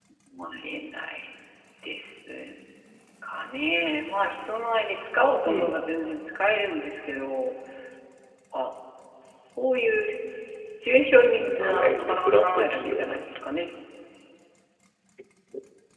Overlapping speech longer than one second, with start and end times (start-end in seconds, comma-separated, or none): 11.5-13.2